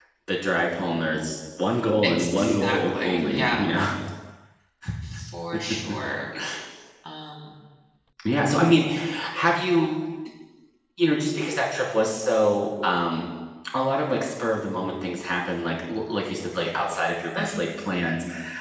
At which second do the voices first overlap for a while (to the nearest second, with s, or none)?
2 s